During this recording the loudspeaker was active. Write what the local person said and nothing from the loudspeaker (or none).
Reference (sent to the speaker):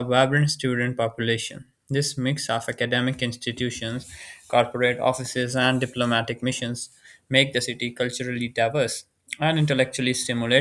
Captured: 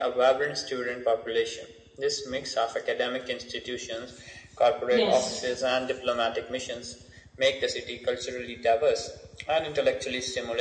Yes,